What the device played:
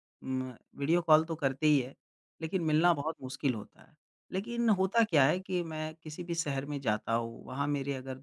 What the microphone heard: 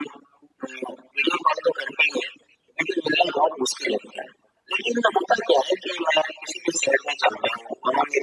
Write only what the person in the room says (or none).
none